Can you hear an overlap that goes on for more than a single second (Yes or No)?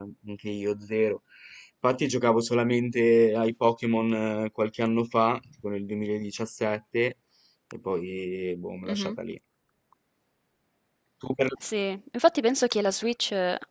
No